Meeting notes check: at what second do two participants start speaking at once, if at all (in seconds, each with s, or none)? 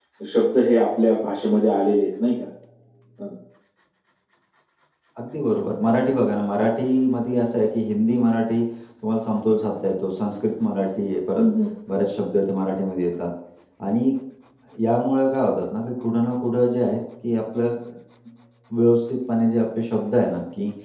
none